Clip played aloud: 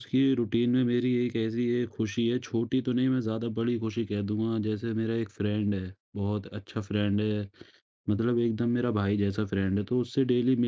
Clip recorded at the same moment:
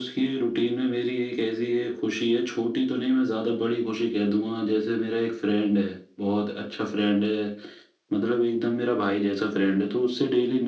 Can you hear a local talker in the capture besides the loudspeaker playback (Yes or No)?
No